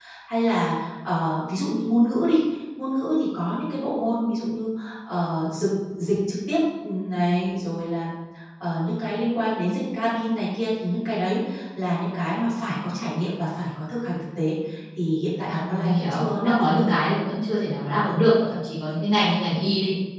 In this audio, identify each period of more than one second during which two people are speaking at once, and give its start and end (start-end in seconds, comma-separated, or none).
15.5-16.9